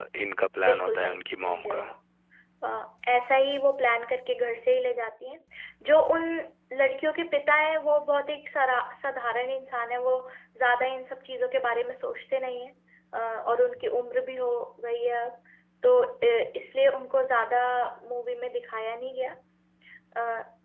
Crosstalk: present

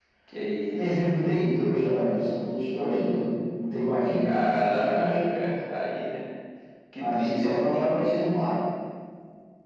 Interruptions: present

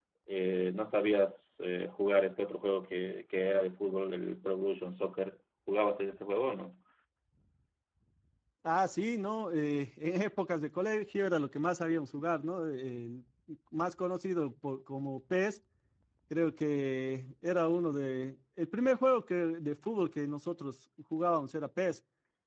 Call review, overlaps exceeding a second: none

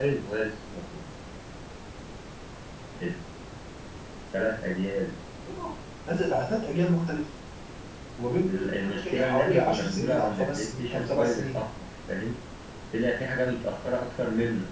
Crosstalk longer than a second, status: present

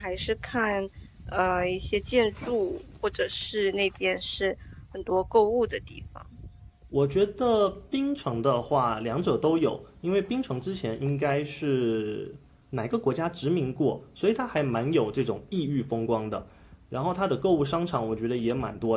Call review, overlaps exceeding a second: none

